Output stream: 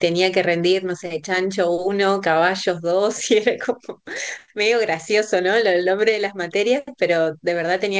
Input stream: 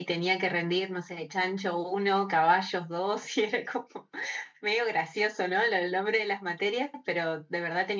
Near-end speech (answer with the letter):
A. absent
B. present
A